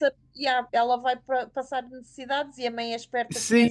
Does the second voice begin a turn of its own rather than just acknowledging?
Yes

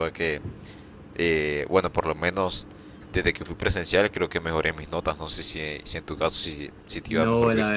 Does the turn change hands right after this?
Yes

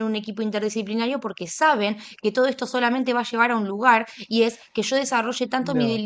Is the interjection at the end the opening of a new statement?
No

